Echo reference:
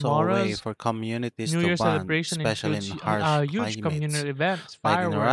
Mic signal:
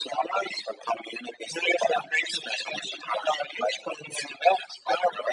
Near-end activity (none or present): none